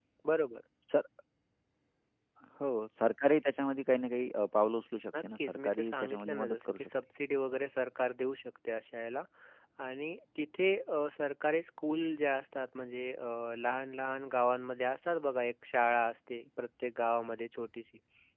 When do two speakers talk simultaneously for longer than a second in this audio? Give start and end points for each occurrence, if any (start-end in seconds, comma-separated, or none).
5.2-6.9